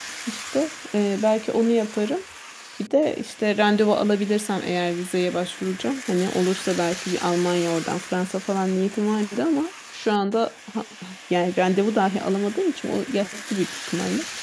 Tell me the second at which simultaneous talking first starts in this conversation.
none

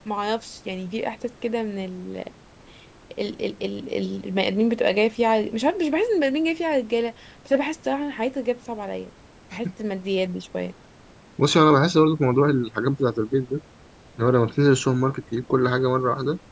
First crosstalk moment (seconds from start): none

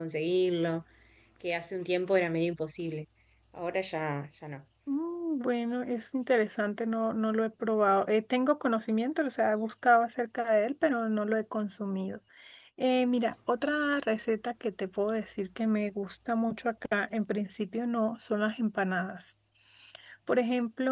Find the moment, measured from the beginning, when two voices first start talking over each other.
none

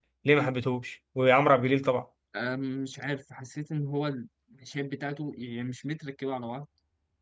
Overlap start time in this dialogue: none

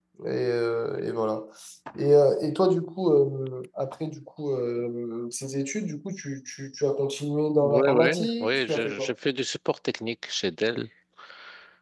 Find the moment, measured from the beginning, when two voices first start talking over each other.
7.6 s

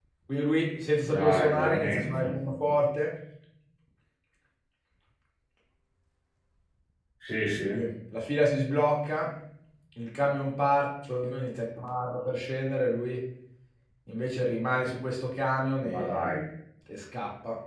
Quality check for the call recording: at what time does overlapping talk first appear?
1.0 s

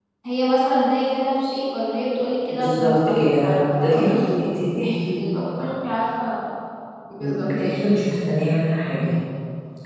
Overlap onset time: 2.5 s

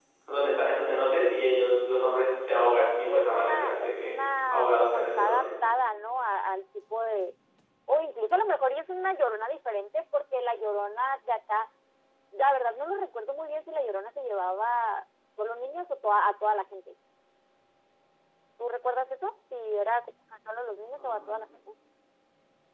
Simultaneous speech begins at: 2.8 s

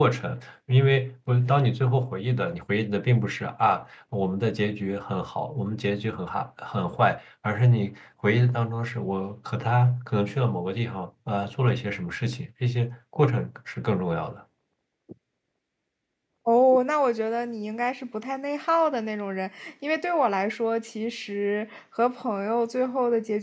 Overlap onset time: none

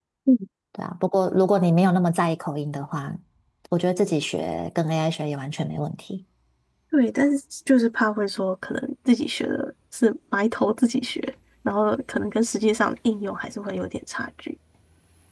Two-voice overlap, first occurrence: none

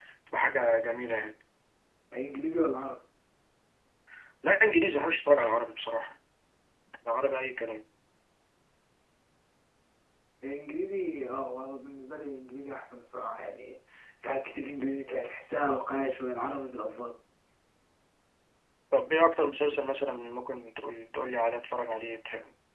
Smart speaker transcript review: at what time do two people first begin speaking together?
none

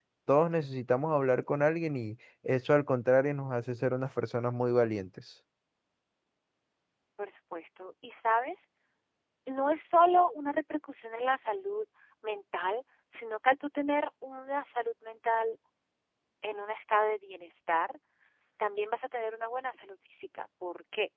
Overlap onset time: none

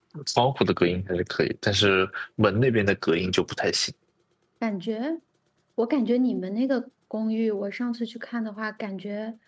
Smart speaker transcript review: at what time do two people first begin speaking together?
none

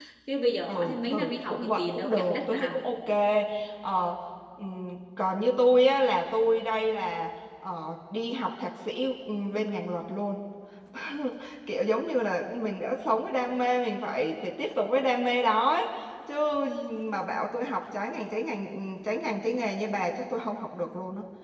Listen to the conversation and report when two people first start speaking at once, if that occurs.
0.7 s

